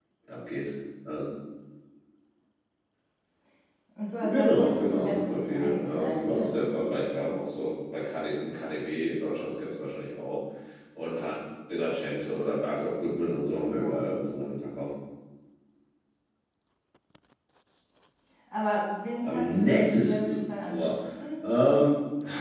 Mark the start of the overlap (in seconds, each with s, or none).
4.2 s